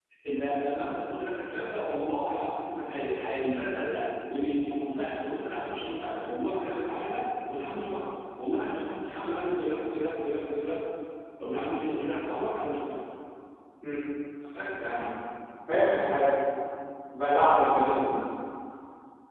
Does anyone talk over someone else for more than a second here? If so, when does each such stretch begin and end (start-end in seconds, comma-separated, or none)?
none